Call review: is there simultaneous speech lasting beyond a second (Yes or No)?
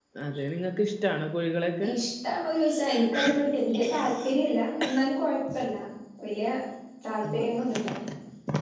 No